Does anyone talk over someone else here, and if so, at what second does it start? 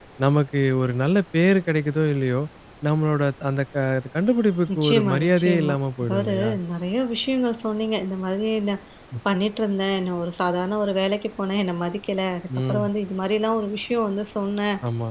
4.8 s

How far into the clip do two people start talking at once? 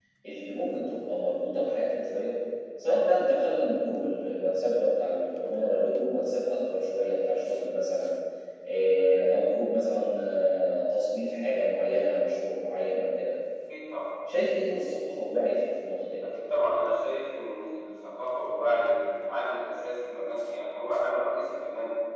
none

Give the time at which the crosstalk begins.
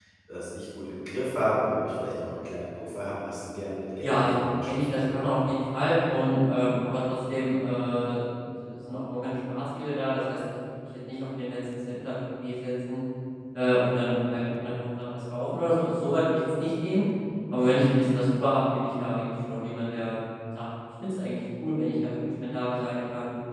4.0 s

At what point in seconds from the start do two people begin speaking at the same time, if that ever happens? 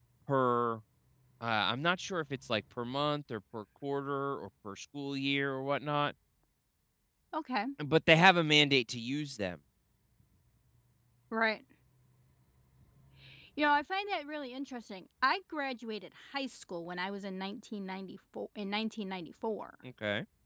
none

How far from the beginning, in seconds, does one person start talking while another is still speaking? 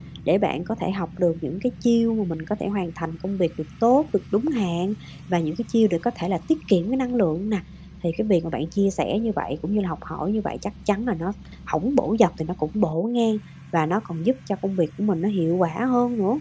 none

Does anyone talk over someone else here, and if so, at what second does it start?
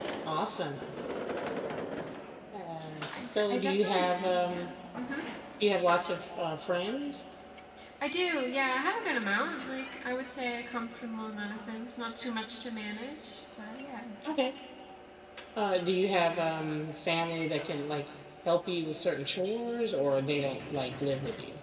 3.1 s

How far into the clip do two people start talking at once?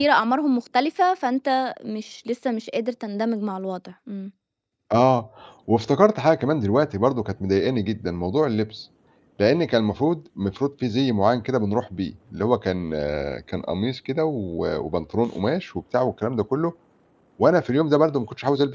none

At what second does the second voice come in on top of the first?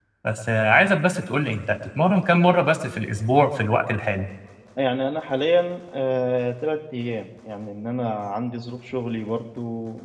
none

